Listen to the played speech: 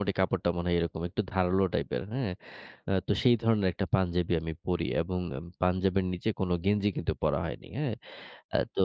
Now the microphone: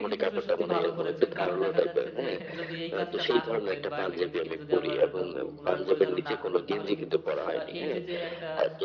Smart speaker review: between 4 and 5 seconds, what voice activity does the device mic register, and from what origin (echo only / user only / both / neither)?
both